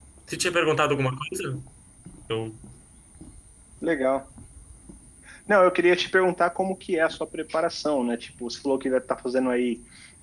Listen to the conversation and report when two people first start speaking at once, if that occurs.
none

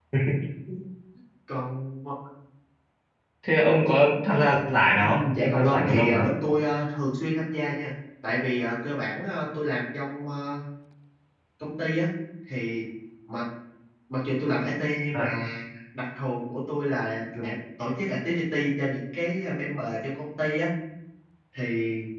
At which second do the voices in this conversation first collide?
5.0 s

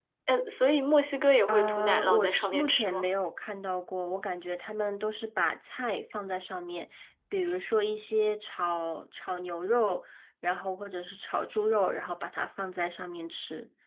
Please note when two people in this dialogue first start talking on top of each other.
1.5 s

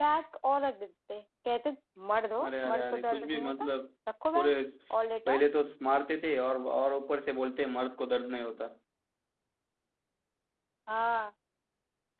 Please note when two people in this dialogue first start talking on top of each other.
2.4 s

